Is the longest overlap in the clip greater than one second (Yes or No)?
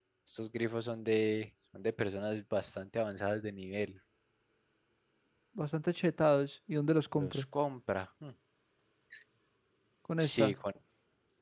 No